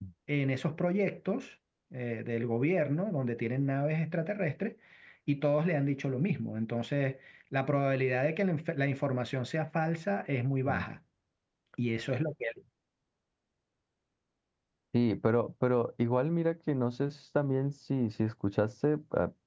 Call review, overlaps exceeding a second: none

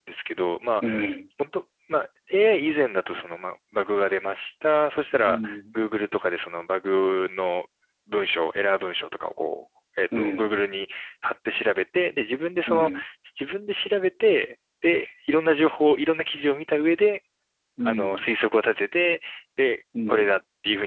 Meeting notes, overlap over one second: none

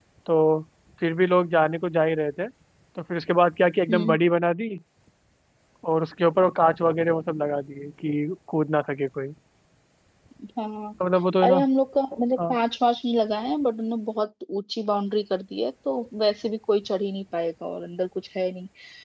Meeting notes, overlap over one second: none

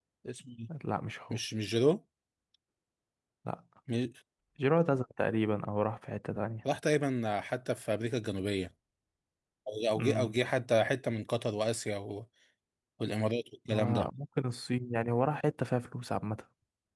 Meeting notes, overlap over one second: none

